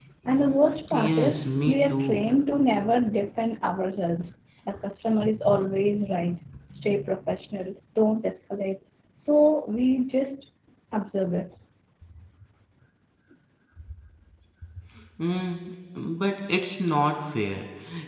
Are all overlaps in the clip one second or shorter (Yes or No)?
No